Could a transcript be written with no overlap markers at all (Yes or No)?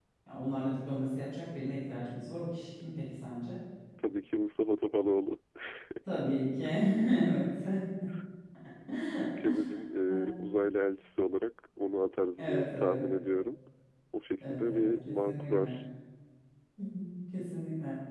No